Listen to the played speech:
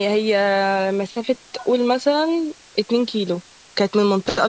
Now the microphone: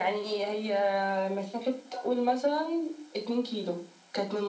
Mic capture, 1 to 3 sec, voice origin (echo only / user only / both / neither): echo only